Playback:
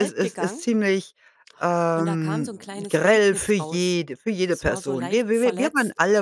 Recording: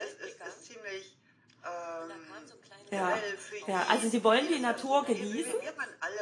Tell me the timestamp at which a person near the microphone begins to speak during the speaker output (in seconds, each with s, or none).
2.9 s